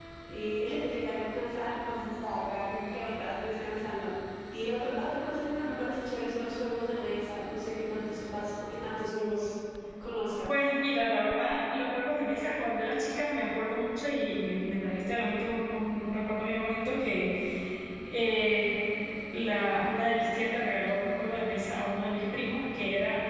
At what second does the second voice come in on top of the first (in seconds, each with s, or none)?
none